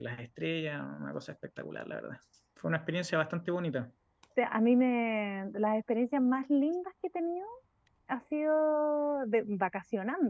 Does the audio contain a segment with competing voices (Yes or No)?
No